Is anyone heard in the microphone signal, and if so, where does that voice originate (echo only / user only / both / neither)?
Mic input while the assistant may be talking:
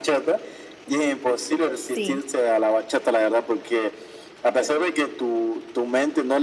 both